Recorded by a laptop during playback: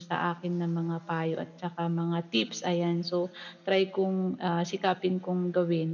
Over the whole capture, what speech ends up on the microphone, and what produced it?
echo only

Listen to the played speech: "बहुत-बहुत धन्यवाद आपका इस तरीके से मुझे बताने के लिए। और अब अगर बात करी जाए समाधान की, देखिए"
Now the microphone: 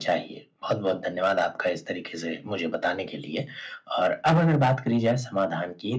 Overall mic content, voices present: echo only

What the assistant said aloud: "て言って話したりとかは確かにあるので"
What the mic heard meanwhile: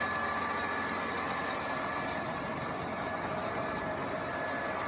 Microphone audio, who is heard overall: neither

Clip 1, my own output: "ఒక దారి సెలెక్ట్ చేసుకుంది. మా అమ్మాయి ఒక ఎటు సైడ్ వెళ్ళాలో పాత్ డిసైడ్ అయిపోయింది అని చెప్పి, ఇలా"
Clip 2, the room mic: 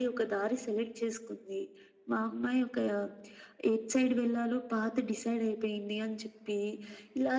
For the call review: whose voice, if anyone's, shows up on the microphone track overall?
echo only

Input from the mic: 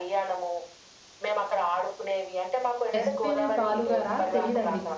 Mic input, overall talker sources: both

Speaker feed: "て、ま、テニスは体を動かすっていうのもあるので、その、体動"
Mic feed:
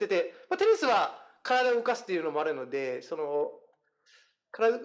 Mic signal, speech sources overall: echo only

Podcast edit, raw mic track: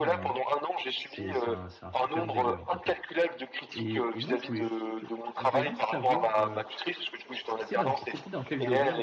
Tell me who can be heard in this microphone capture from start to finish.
both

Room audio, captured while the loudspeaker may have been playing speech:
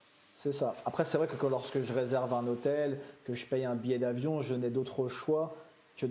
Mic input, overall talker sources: user only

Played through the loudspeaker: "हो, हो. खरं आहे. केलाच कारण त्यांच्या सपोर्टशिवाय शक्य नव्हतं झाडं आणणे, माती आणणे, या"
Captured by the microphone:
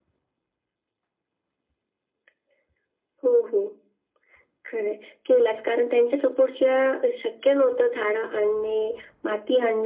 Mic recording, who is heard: echo only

